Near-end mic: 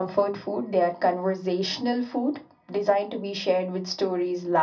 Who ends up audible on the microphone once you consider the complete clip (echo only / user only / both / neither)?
echo only